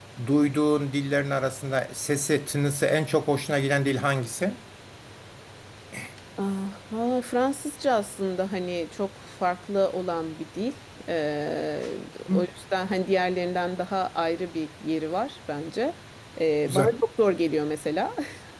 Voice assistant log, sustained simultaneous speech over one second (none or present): none